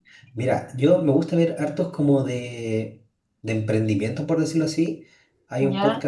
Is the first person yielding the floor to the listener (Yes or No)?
No